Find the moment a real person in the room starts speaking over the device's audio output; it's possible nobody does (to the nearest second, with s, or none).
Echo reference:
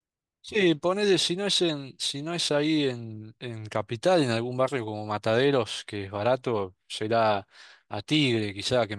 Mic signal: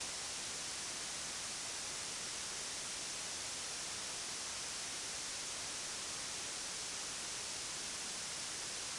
none